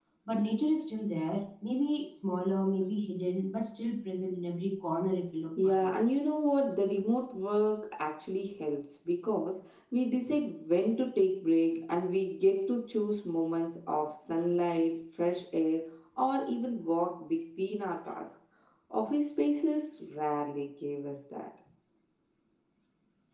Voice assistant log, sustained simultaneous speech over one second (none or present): none